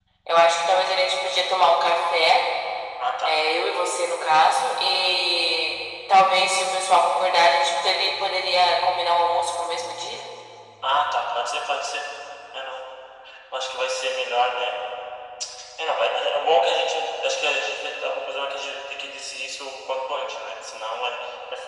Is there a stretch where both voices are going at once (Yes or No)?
No